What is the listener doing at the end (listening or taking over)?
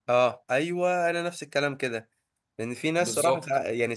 listening